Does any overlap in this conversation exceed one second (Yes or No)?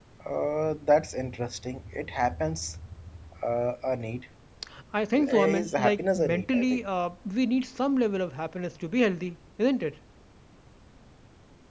Yes